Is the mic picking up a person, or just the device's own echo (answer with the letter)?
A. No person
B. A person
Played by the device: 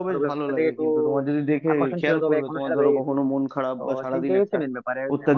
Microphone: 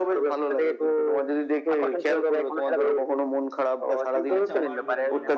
B